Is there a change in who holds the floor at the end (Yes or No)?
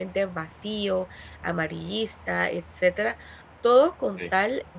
No